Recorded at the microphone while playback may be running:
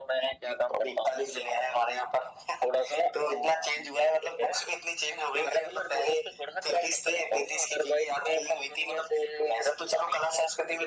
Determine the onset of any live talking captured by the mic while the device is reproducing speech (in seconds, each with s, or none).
none